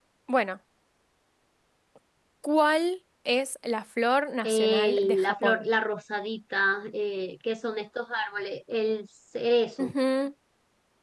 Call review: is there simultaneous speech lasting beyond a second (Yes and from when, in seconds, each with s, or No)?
Yes, from 4.4 s